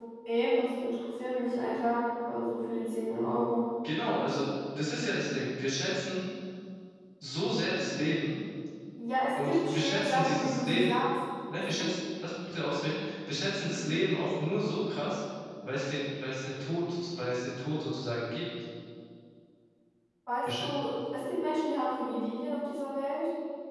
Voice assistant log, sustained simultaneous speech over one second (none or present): present